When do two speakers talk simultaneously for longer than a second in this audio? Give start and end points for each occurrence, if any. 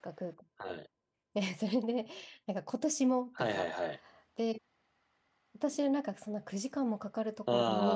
none

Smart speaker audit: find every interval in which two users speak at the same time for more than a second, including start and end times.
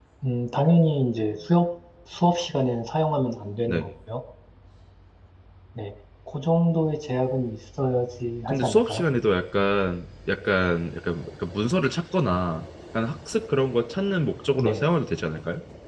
none

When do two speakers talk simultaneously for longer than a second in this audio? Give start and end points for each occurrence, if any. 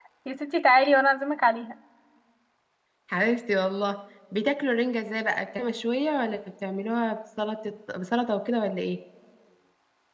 none

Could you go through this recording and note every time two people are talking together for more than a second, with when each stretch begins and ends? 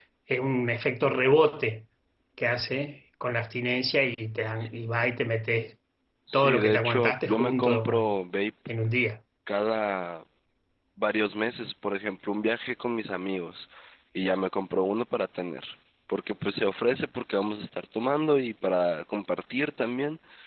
6.3-8.2

